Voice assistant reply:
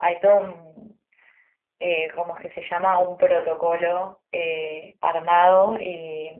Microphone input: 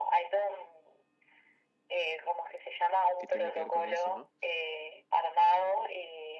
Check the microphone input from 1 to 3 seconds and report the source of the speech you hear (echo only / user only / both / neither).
echo only